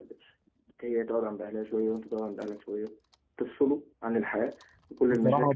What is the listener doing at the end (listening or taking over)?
taking over